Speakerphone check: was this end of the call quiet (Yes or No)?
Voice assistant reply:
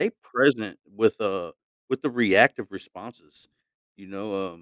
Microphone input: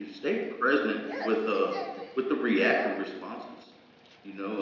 No